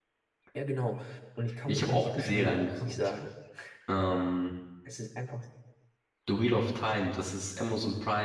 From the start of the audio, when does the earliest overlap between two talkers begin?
1.7 s

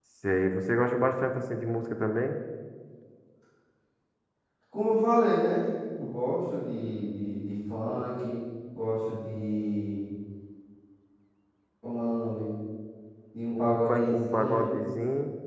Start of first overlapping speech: 13.5 s

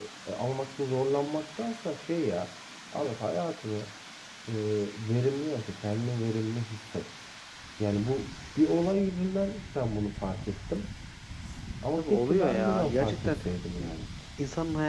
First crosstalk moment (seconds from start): 12.0 s

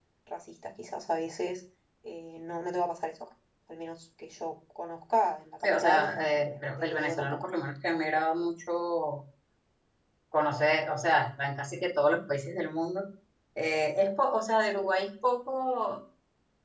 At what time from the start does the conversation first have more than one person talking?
5.6 s

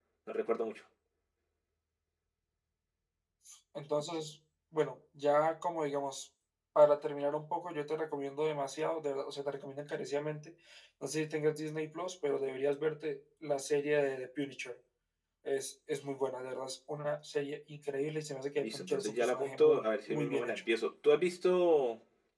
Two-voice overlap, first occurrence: 18.6 s

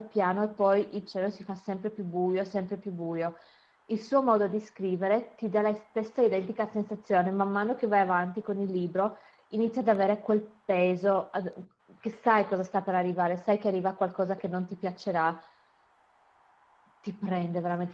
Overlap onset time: none

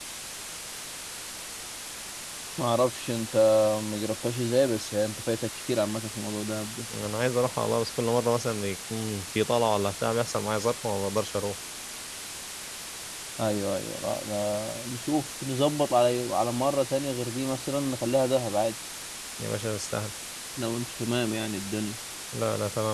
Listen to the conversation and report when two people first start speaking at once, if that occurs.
none

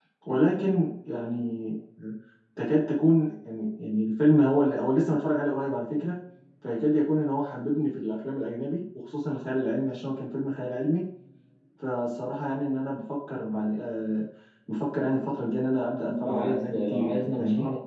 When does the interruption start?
16.0 s

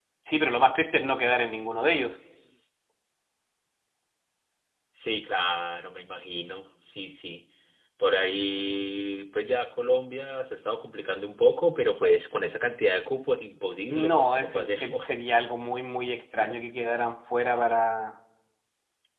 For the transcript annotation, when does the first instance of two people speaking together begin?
13.9 s

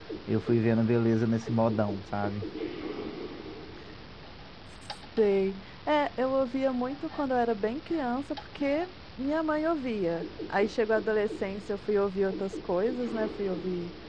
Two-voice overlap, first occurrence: none

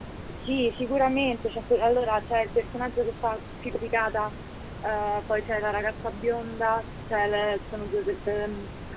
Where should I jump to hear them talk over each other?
none

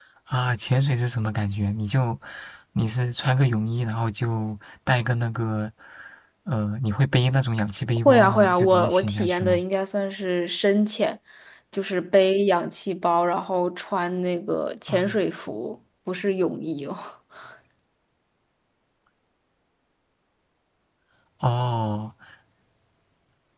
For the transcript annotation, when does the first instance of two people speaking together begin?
8.0 s

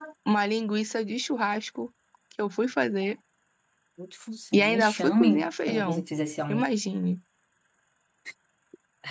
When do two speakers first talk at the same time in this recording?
4.5 s

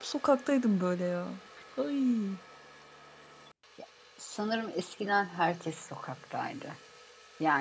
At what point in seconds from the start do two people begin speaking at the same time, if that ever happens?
none

